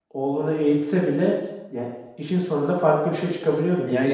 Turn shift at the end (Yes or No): Yes